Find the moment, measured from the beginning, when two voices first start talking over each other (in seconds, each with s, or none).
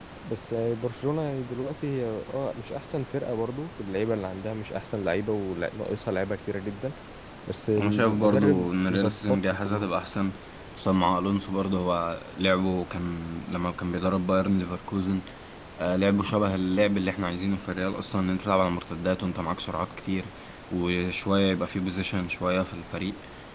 7.8 s